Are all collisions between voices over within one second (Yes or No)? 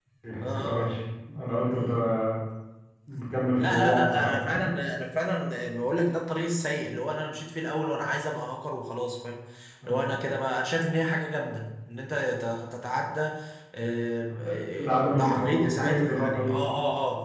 No